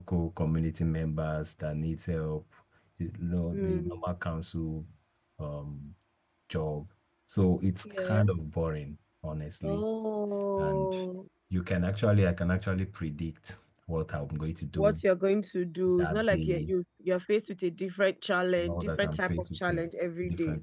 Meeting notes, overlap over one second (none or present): present